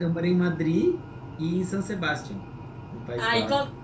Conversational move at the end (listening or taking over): taking over